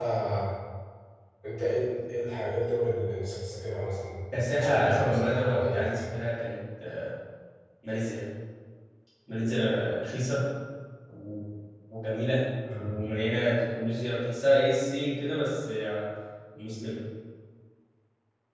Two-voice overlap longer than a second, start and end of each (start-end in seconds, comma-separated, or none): 4.5-6.0